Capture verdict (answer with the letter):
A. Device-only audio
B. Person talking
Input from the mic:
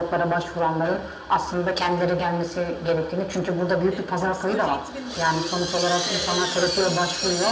B